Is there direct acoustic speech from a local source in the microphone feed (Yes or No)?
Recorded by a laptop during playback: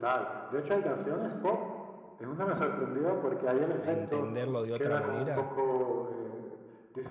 Yes